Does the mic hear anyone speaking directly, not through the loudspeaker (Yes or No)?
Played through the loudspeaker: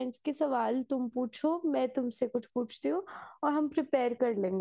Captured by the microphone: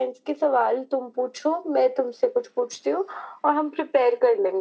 No